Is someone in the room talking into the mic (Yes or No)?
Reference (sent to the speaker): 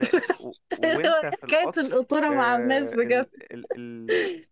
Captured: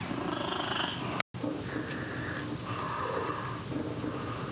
No